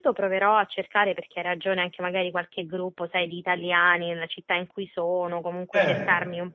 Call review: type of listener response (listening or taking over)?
listening